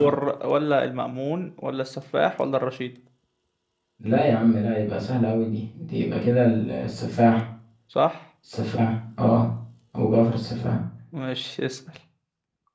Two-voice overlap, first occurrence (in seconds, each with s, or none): none